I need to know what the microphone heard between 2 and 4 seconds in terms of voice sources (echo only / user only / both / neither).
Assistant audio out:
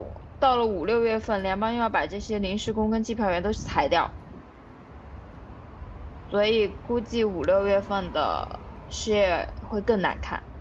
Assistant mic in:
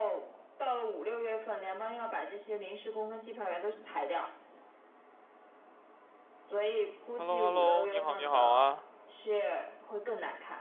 echo only